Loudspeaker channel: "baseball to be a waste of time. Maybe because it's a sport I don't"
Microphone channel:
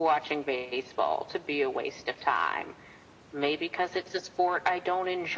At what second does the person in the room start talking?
none

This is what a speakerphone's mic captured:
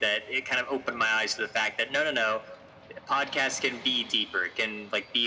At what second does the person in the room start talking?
none

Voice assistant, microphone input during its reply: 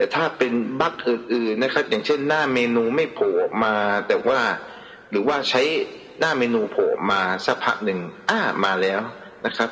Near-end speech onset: none

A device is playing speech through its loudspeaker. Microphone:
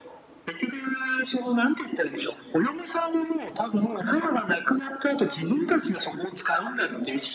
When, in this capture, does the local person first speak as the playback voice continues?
none

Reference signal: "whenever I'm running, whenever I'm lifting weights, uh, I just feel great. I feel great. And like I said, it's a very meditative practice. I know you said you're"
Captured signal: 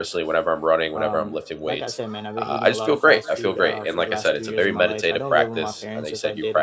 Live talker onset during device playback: 0.9 s

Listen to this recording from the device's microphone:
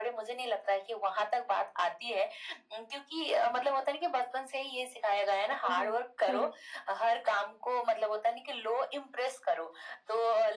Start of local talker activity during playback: 5.5 s

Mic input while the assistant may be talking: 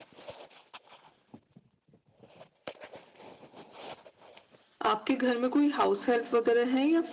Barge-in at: 4.8 s

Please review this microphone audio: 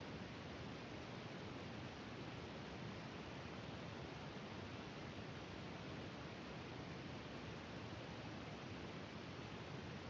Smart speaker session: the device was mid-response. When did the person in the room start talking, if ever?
none

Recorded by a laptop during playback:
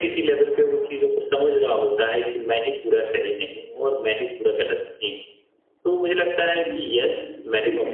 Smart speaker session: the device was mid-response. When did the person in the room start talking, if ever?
6.4 s

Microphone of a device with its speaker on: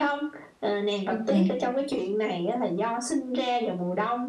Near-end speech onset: 1.1 s

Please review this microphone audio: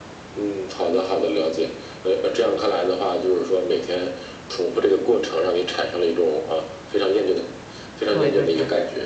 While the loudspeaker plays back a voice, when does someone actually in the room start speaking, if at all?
8.1 s

